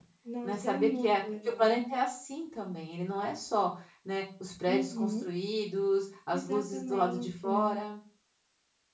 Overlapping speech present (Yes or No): Yes